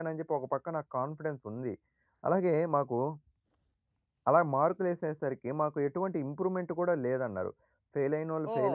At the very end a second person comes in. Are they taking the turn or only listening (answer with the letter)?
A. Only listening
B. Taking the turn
B